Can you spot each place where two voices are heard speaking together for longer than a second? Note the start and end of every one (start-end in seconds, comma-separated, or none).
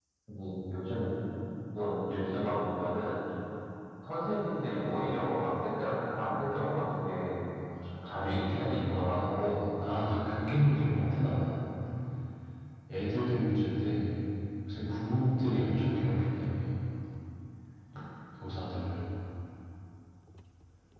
8.1-9.6